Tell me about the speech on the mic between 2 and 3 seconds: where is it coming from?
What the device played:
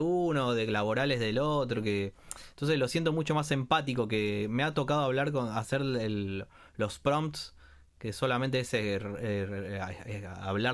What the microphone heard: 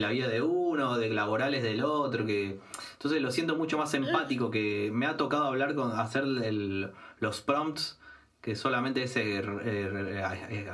echo only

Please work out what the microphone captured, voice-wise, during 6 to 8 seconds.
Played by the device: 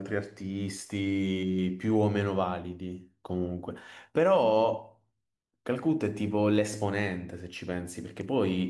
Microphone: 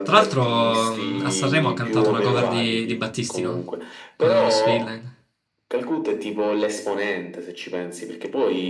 echo only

